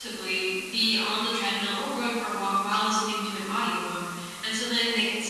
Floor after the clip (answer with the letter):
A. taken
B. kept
B